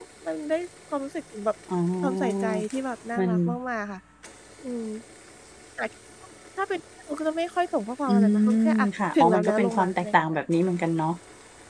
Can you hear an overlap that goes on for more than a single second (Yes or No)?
Yes